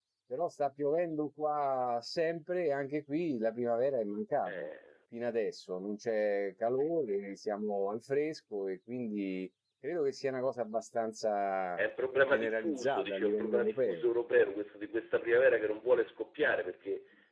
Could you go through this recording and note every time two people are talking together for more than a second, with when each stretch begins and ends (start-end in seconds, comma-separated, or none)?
12.3-14.0